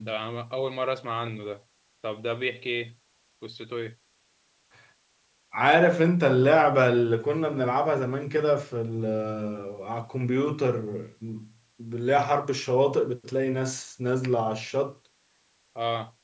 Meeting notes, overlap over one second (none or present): none